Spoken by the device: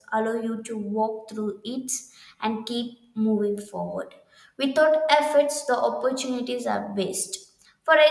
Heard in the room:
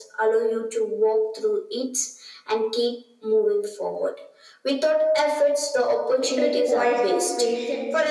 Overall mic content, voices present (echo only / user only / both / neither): both